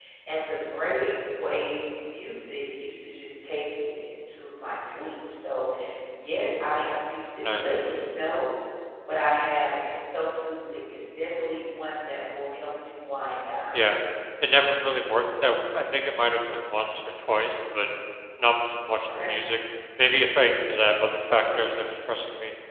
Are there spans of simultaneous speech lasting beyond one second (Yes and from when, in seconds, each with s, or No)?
No